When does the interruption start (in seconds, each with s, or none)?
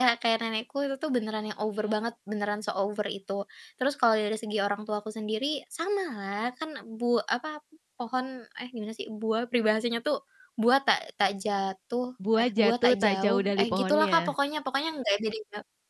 12.2 s